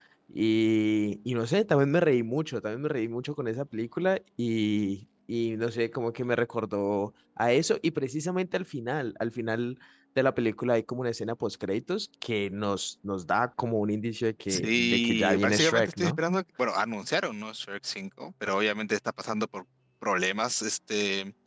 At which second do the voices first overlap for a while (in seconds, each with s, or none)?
14.5 s